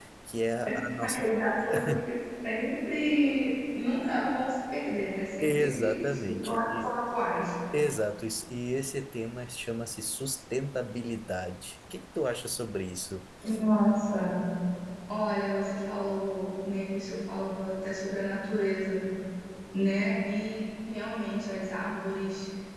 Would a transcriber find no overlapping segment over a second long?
No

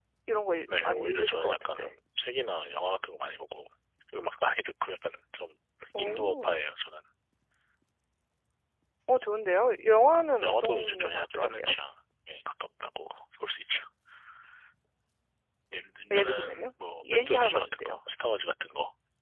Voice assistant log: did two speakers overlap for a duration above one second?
Yes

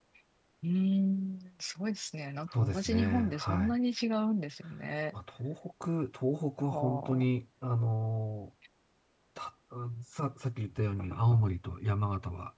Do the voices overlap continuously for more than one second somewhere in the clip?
Yes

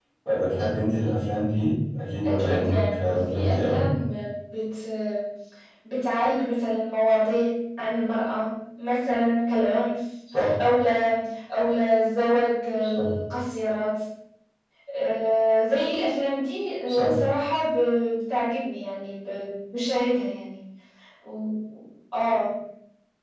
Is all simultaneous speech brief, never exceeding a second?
No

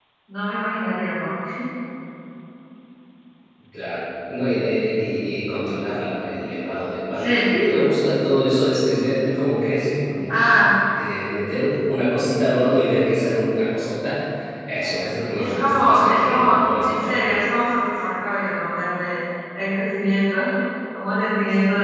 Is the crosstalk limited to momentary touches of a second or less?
No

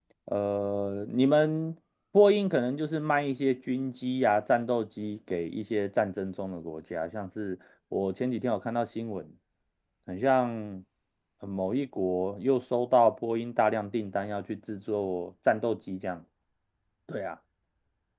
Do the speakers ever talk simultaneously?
No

